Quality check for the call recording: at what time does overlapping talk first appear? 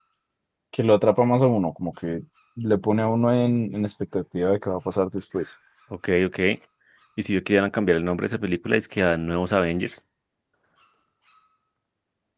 none

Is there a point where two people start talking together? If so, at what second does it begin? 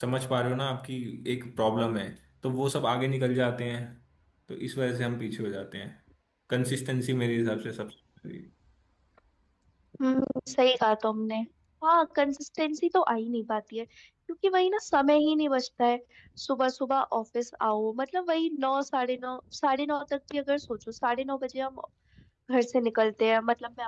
none

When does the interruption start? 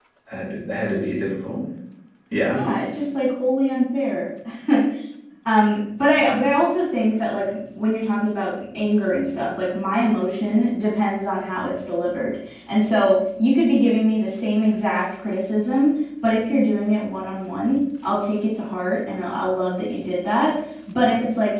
none

